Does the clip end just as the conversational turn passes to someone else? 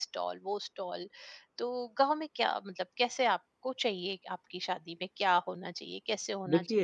No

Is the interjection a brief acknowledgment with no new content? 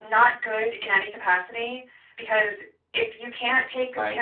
Yes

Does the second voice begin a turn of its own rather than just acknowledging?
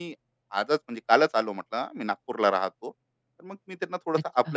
No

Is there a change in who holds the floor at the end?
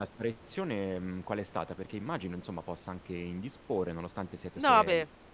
Yes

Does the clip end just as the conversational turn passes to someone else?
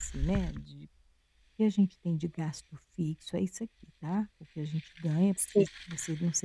No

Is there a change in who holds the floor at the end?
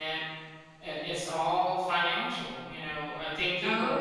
No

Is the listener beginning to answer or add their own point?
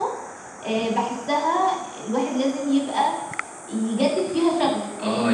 Yes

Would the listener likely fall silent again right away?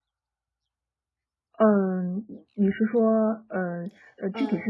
No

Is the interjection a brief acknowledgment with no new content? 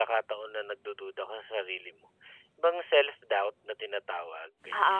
No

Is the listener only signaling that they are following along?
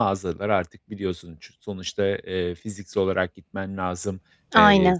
Yes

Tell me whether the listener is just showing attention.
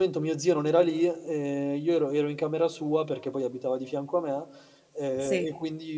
Yes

